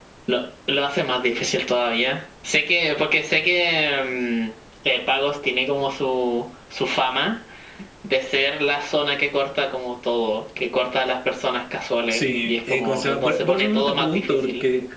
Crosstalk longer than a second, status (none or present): present